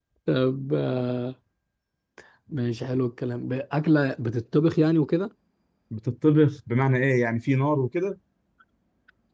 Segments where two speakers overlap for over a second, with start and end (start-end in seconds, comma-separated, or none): none